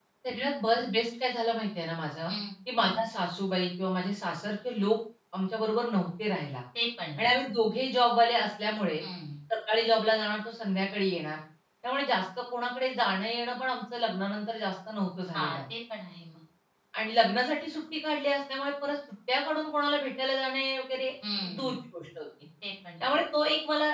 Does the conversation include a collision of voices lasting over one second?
No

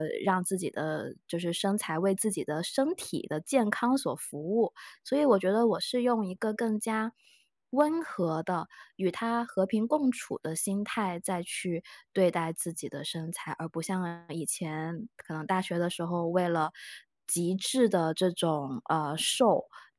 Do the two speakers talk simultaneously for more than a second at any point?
No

